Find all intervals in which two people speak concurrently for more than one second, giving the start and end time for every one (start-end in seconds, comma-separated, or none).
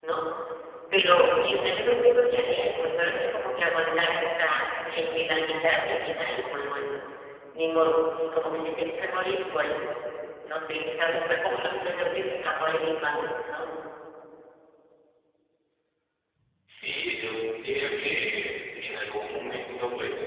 none